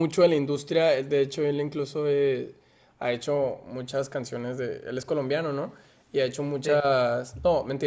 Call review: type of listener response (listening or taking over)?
listening